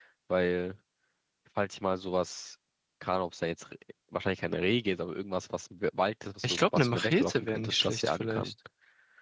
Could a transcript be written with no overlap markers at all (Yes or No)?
No